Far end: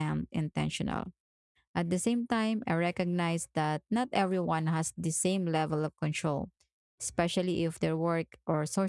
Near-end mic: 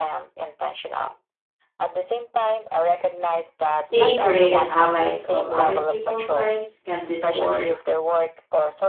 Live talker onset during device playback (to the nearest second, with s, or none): 4 s